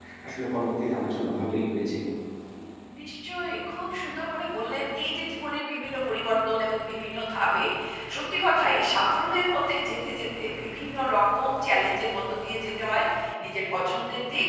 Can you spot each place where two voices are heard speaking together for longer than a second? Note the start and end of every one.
none

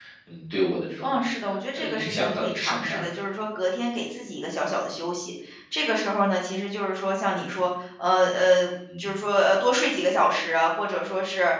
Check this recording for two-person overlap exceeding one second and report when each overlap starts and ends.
1.8-3.1

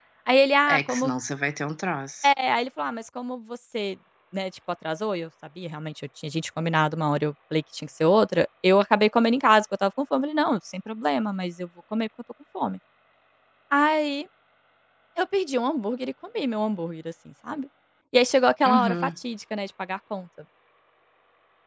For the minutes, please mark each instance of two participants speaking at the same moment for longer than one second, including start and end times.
none

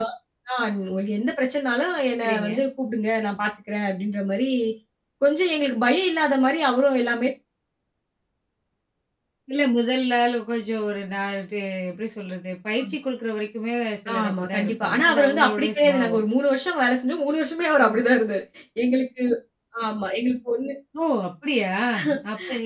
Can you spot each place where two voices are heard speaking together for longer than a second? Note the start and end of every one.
14.2-16.2

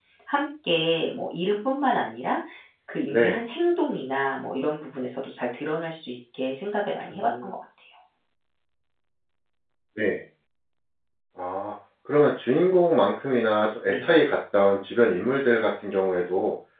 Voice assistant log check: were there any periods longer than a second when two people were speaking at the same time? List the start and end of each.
none

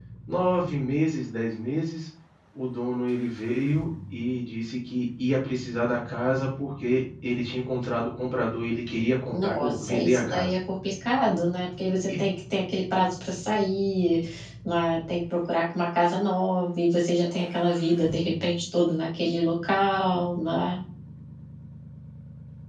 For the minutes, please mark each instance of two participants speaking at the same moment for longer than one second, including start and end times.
9.3-10.6

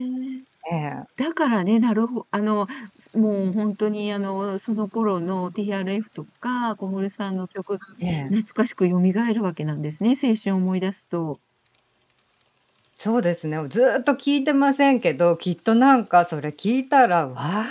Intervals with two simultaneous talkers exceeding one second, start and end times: none

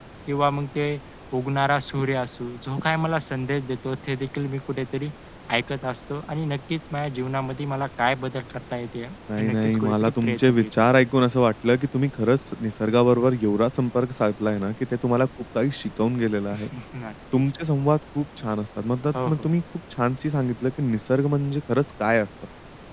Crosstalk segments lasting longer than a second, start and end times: 9.4-11.1

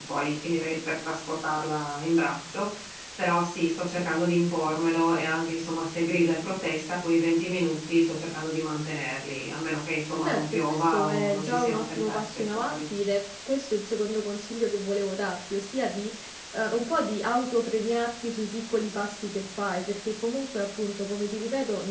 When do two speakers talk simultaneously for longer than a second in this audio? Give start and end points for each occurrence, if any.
10.2-12.8

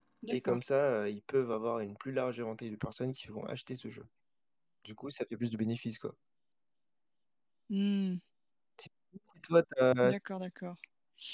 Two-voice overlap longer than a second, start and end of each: none

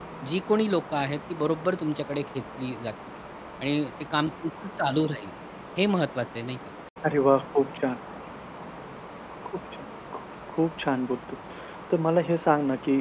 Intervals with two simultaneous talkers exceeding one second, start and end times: none

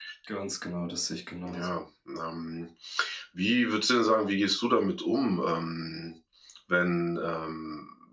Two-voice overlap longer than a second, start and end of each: none

